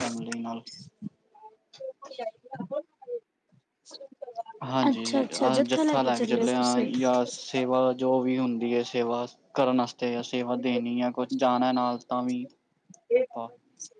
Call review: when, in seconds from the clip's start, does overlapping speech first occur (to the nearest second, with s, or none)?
5 s